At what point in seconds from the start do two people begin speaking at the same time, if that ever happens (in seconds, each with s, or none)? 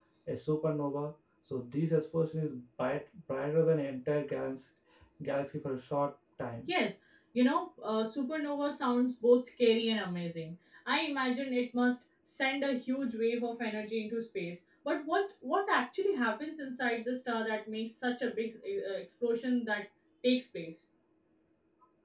none